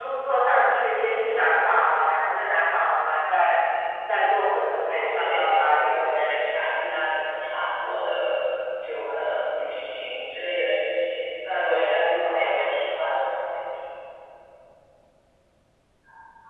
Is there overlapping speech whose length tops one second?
Yes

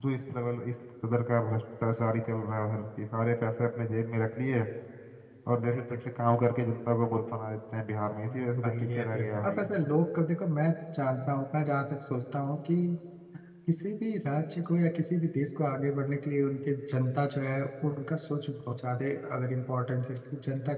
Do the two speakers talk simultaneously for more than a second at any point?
Yes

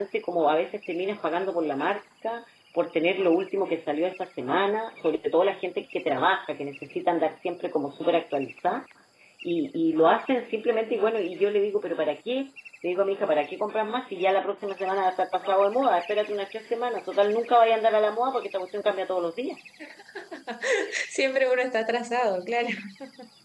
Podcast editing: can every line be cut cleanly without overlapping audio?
Yes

